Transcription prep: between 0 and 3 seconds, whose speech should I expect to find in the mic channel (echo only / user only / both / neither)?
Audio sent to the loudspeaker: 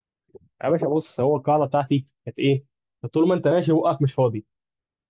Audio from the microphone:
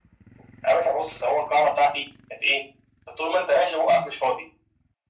echo only